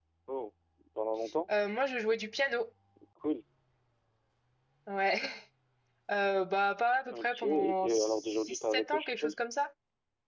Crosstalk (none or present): present